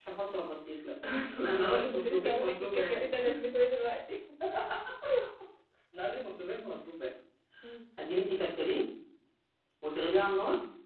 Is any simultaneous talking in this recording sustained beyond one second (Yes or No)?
Yes